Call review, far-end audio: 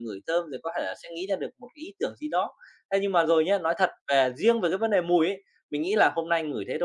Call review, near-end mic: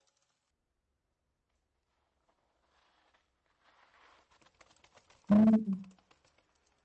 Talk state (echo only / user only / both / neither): user only